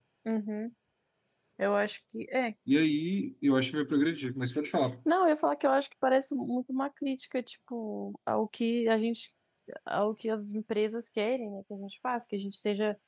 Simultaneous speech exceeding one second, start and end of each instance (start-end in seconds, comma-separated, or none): none